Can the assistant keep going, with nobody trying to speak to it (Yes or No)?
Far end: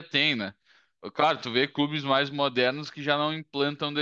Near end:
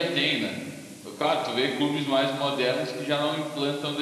Yes